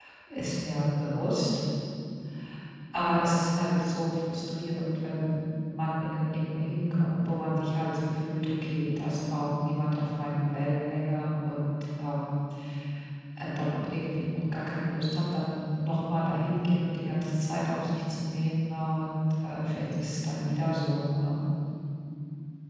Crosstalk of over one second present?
No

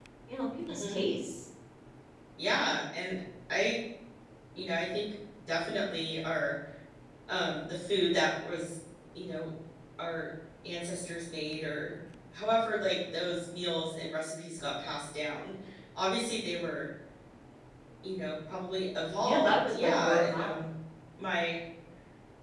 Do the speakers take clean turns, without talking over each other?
No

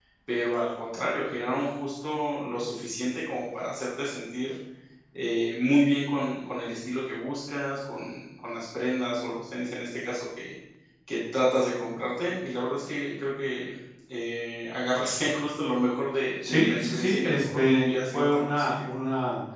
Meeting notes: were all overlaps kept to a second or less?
No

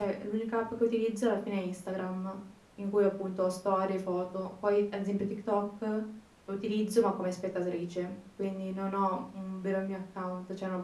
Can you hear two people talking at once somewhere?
No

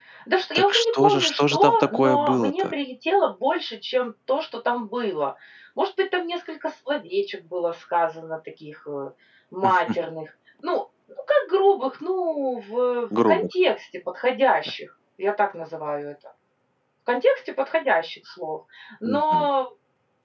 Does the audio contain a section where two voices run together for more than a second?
Yes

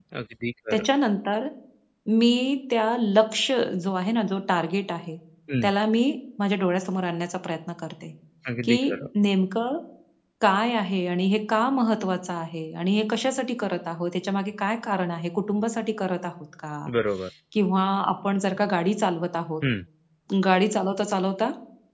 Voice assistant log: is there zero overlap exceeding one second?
Yes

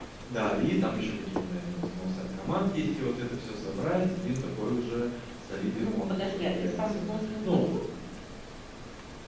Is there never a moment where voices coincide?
No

